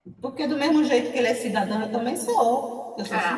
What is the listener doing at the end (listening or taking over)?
taking over